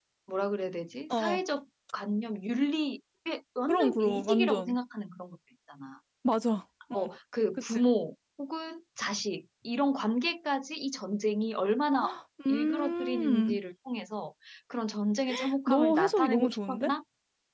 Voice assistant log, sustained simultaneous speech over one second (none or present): present